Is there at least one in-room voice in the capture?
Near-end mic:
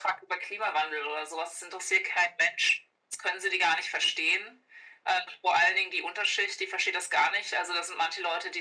No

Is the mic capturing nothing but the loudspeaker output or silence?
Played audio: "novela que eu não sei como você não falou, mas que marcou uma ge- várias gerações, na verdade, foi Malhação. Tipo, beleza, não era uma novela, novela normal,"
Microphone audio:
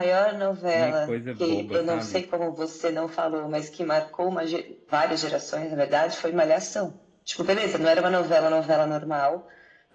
No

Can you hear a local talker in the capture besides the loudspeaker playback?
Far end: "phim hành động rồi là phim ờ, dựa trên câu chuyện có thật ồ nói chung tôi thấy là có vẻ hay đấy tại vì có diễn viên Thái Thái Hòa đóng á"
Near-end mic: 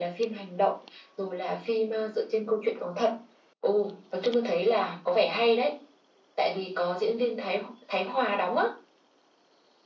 No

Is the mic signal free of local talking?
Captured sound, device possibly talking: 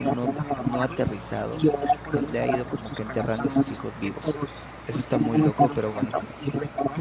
No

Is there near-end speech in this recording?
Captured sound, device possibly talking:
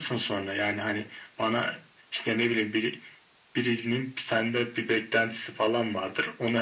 No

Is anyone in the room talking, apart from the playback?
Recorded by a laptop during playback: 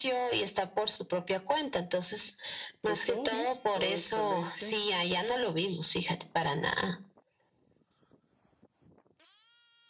Yes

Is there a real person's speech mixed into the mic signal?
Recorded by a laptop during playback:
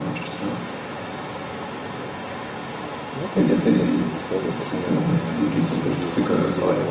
Yes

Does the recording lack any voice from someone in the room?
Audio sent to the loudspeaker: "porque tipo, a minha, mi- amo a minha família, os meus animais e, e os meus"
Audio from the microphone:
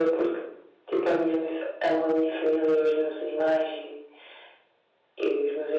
Yes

